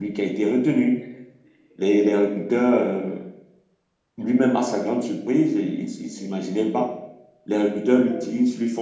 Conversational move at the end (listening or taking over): listening